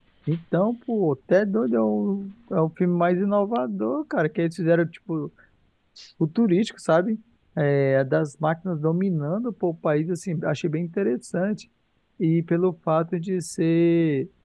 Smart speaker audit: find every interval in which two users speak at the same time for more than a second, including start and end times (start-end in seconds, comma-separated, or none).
none